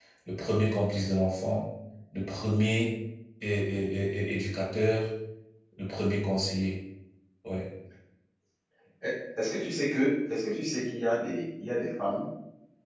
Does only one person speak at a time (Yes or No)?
Yes